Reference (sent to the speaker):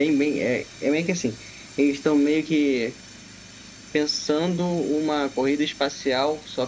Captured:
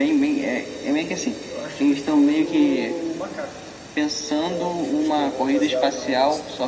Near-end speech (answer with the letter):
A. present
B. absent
A